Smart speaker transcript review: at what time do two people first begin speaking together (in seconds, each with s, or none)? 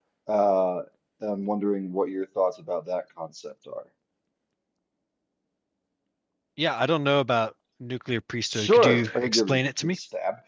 8.5 s